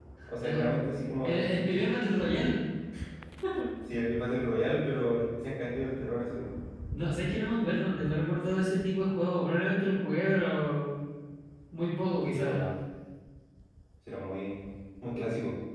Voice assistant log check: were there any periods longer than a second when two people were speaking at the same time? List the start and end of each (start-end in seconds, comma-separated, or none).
none